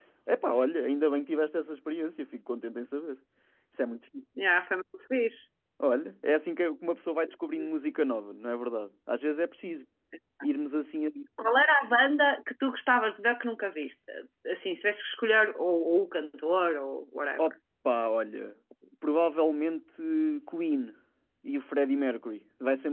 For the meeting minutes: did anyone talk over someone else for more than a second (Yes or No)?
No